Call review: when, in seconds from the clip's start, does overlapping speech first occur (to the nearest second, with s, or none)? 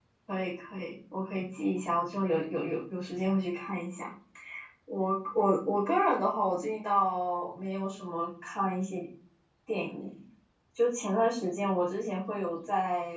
none